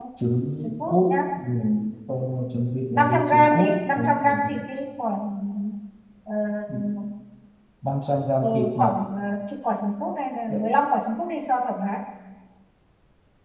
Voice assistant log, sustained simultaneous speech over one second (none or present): present